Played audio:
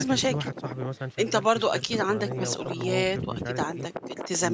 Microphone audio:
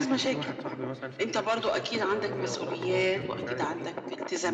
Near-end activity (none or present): none